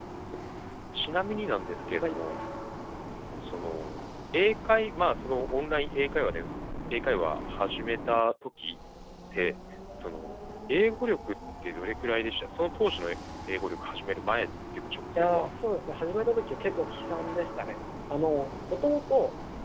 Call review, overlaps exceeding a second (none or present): none